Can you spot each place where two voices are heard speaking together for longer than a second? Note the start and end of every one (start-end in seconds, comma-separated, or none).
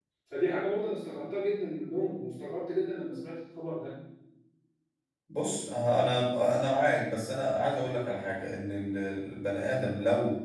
none